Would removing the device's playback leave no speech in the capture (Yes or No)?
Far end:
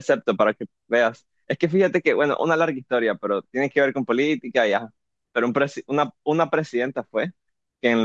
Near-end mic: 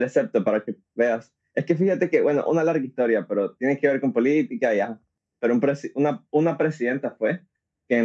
Yes